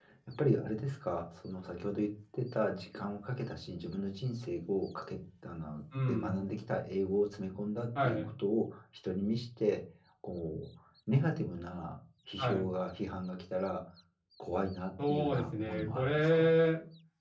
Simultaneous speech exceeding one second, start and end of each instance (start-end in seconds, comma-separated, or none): 15.1-16.5